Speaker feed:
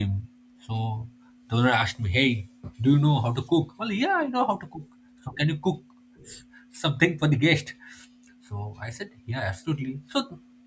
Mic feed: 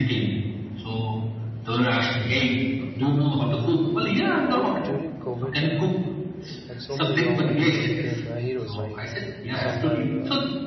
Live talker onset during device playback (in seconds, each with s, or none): 4.4 s